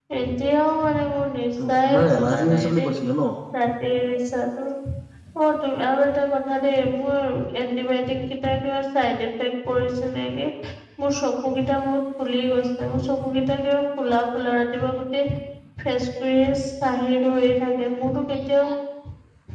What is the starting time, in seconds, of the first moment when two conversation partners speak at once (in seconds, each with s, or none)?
1.6 s